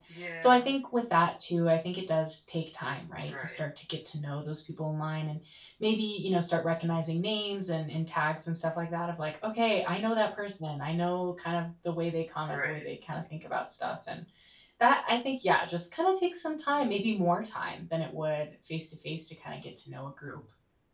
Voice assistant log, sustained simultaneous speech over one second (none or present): none